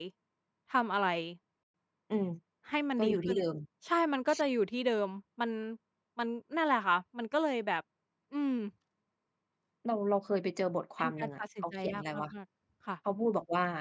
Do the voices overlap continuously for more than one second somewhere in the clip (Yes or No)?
Yes